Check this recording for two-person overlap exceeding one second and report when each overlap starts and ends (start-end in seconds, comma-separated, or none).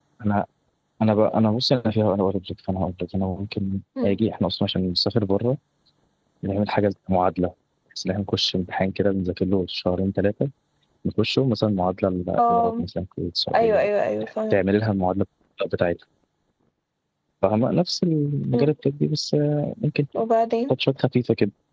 none